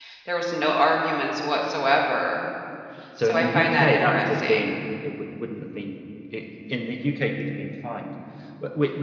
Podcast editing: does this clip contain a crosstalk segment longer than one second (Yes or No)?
Yes